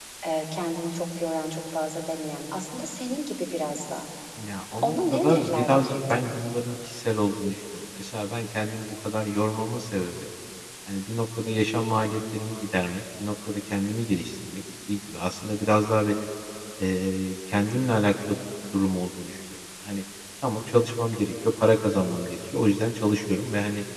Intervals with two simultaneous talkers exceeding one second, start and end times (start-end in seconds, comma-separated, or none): 4.8-6.3